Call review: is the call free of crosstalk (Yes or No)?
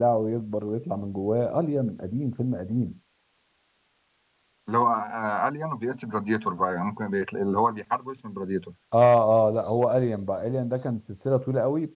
Yes